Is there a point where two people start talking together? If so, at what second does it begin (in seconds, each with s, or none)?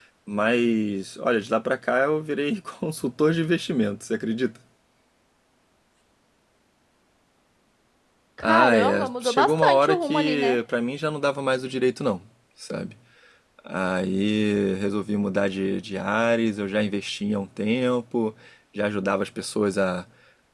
8.4 s